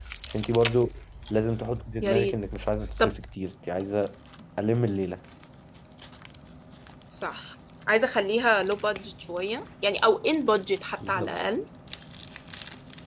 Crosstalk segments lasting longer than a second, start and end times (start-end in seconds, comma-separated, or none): none